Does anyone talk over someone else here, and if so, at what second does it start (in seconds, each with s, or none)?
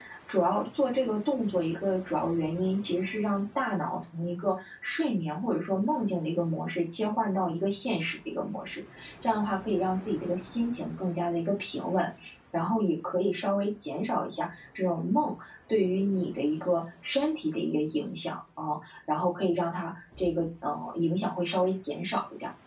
none